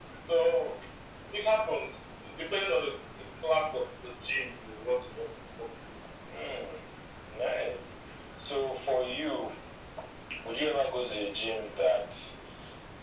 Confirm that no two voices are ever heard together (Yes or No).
Yes